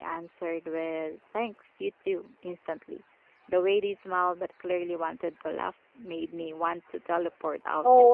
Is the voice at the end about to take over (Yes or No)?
Yes